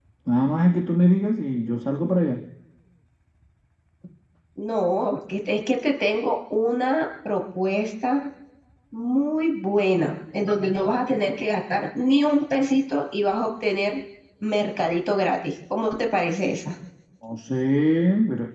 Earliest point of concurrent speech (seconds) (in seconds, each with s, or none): none